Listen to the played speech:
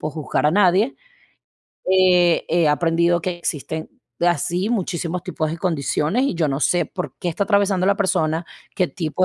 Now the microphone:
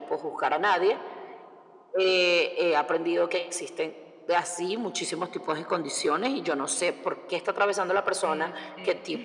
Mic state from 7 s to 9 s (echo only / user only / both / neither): both